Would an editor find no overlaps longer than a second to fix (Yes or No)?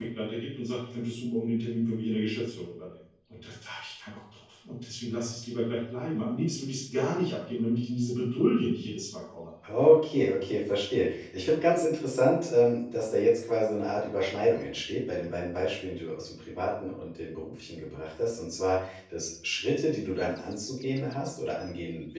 Yes